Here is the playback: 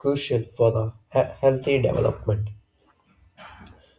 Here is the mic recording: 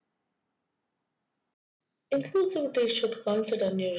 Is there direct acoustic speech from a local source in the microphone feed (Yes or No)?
Yes